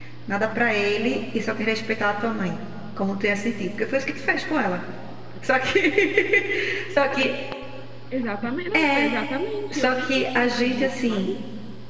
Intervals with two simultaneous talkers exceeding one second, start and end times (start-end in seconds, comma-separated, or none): 9.7-11.3